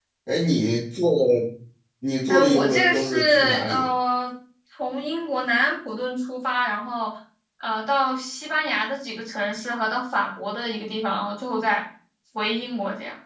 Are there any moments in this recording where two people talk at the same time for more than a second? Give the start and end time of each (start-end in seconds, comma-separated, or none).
2.3-3.9